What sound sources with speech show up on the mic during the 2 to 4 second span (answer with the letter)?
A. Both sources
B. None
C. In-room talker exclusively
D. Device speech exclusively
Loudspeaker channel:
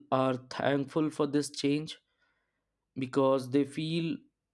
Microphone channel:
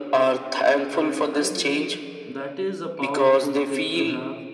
A